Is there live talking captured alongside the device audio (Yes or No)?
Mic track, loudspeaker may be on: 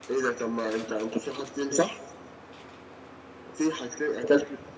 No